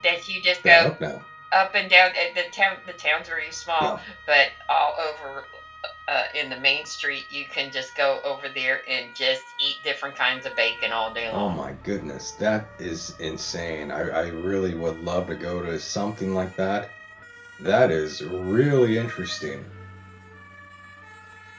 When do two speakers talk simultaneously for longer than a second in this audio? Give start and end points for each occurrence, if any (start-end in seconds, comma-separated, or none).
none